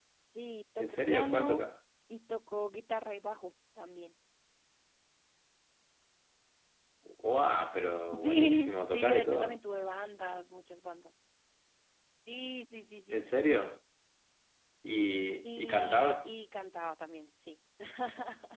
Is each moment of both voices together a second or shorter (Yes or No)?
No